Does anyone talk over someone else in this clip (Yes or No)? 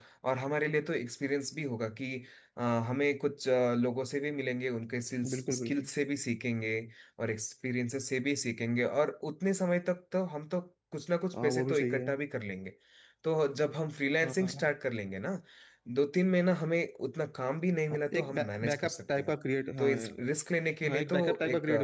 Yes